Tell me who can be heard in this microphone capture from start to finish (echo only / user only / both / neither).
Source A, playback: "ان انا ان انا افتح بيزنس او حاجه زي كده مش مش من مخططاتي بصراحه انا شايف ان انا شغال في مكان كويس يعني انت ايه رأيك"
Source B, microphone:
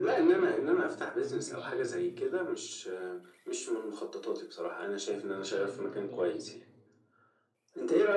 both